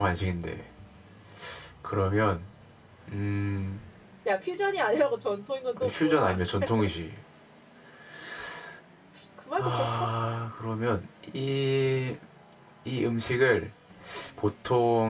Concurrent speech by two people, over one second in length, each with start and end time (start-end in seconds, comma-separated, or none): none